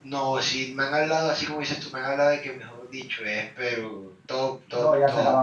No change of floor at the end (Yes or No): No